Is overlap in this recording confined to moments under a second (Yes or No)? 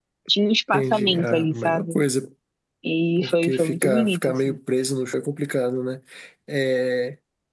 No